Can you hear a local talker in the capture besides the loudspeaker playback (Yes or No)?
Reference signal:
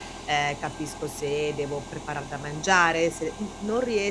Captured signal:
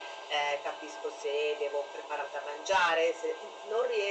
No